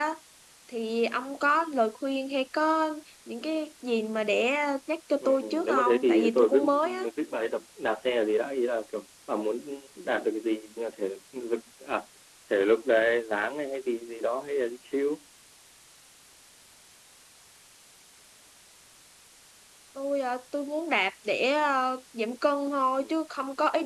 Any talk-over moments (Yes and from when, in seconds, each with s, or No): Yes, from 5.2 s